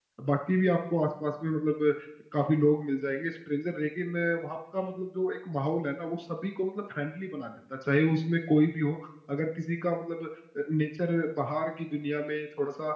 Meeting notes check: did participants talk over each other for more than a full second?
No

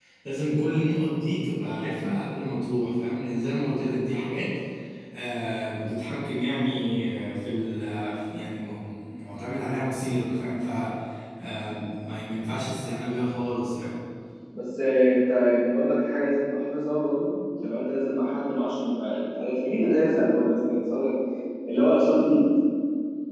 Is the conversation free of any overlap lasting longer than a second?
Yes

